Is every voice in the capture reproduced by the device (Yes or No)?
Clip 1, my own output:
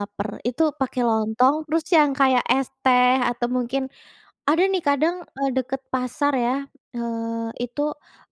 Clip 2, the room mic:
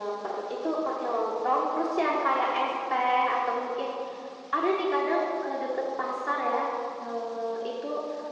Yes